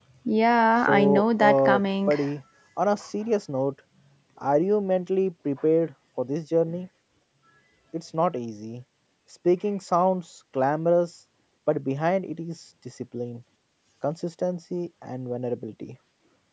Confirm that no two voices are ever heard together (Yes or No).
No